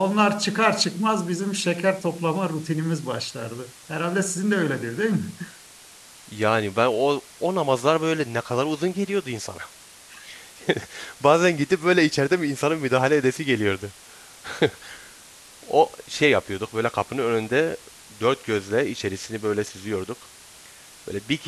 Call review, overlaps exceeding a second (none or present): none